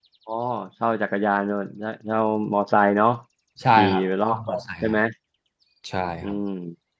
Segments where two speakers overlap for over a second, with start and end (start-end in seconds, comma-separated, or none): 3.8-5.0